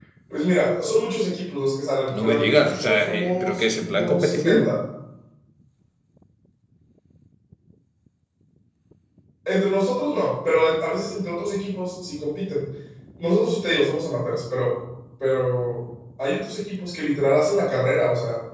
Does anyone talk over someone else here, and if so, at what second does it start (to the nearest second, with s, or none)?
2 s